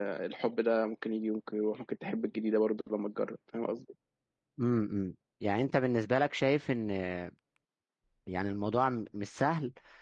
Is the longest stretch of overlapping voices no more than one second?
Yes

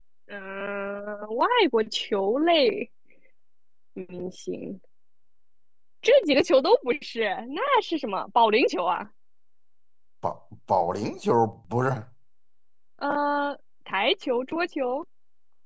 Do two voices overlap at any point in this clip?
No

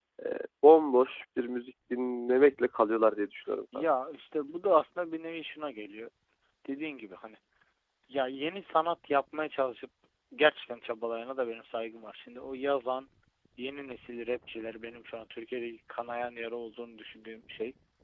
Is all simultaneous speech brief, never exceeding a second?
Yes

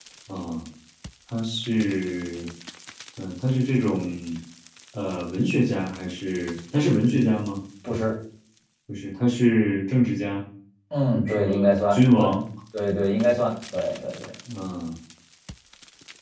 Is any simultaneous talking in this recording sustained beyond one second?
Yes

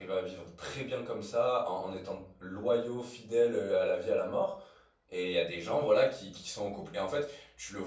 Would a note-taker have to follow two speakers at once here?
No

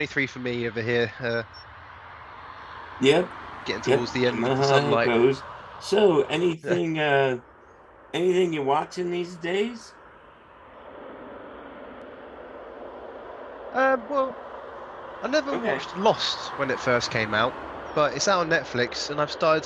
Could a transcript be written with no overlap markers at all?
No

